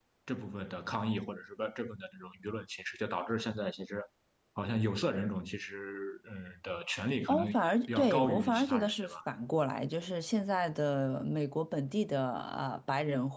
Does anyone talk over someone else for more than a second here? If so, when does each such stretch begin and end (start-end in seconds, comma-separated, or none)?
7.9-9.1